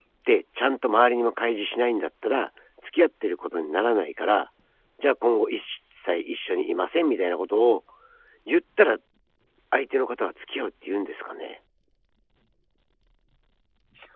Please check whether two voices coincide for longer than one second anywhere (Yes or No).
No